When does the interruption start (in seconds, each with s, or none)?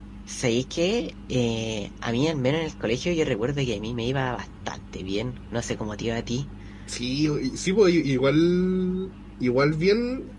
none